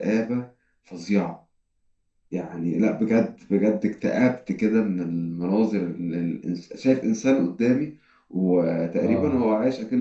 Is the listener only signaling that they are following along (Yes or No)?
Yes